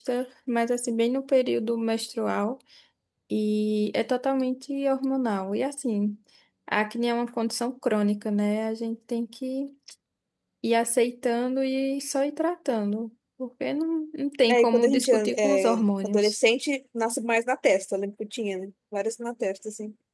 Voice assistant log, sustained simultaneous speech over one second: present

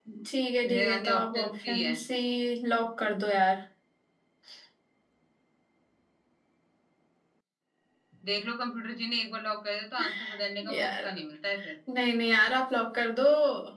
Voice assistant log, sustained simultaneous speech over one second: present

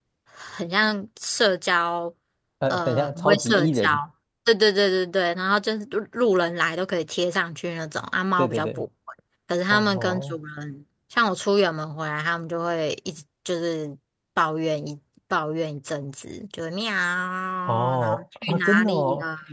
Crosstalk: present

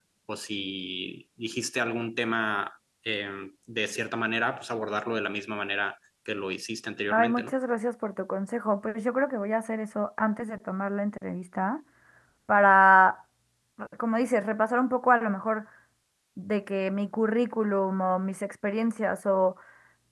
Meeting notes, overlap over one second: none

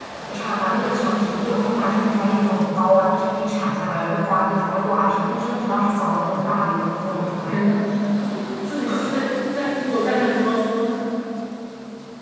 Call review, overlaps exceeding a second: none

